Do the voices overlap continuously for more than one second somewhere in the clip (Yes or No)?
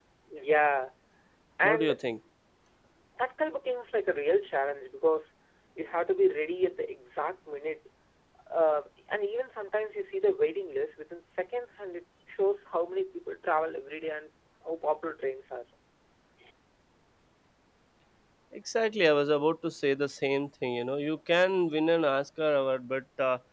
No